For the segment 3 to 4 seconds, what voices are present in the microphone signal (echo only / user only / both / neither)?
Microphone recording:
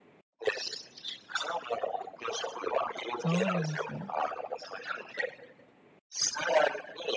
both